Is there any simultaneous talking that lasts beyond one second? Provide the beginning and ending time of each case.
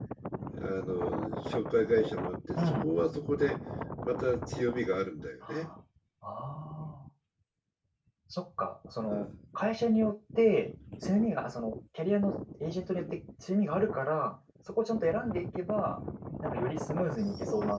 none

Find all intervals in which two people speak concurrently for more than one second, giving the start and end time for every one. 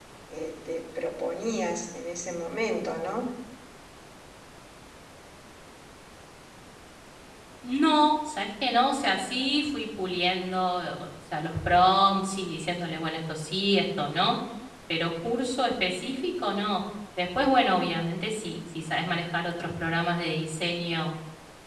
none

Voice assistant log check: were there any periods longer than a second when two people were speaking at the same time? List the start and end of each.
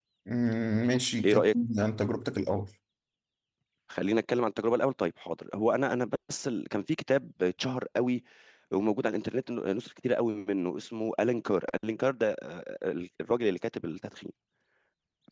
none

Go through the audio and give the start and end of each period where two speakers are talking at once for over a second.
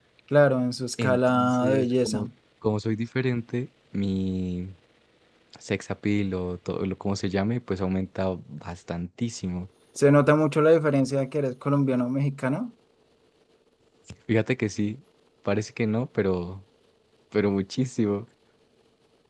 1.0-2.3

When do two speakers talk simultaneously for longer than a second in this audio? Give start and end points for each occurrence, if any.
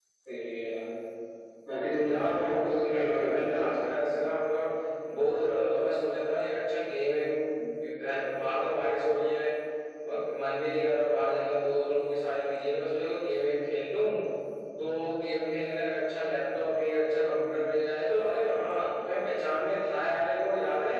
2.0-3.7

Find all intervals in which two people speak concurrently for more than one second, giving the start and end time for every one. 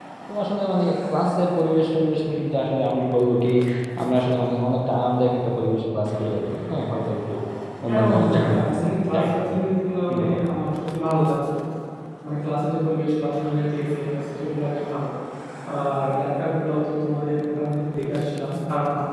7.9-9.6

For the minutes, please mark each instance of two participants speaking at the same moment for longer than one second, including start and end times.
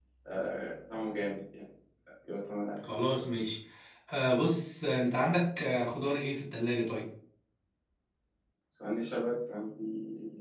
none

